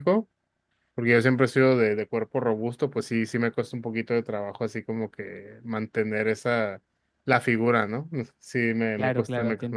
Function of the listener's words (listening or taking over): taking over